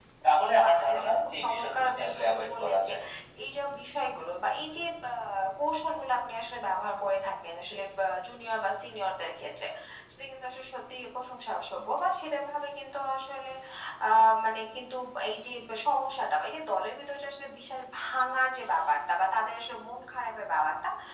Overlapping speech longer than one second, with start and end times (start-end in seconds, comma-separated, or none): 0.6-2.9